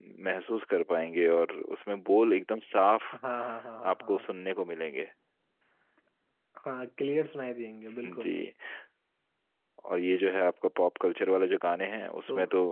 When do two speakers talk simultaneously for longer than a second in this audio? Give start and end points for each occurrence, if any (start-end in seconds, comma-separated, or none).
none